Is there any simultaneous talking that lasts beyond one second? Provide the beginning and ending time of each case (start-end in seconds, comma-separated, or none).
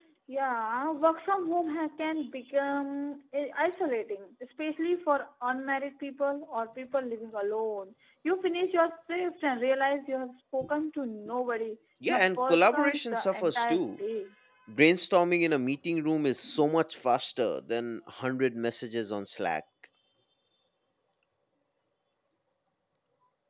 12.1-13.8